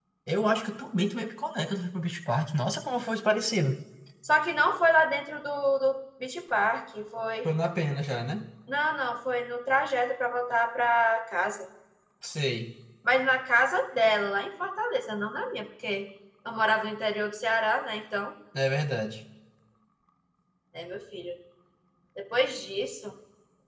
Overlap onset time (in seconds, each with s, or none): none